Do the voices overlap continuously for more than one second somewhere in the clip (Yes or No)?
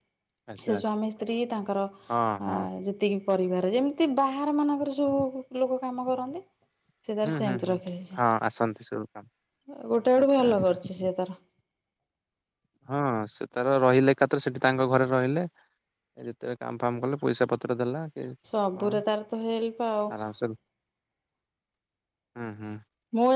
No